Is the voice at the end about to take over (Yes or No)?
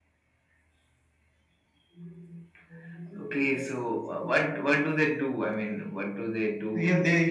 Yes